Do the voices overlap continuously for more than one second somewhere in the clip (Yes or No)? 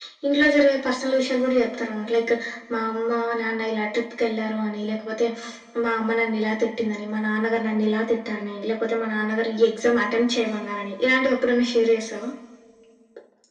No